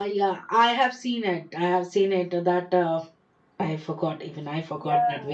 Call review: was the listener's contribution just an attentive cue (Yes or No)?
No